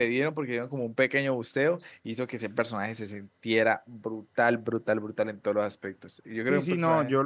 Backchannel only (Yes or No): No